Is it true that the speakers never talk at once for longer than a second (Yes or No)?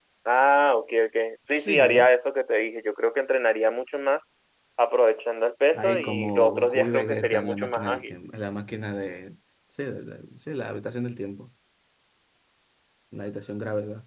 No